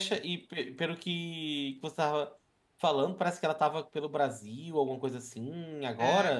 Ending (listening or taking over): taking over